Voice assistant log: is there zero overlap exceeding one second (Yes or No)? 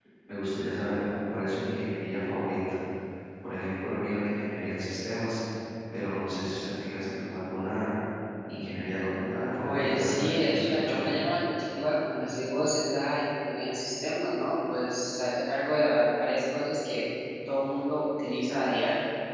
No